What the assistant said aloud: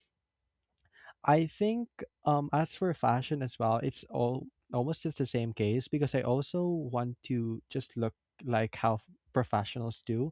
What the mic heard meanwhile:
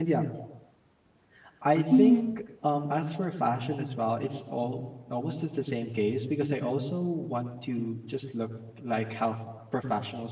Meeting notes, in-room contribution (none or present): present